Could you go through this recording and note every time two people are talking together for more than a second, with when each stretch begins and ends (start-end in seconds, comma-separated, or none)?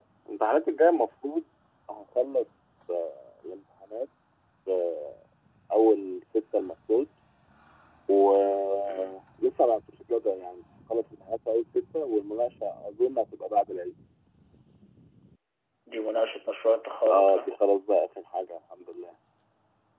none